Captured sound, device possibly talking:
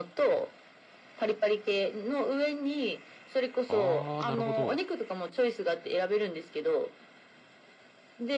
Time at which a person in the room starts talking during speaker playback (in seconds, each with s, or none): 3.7 s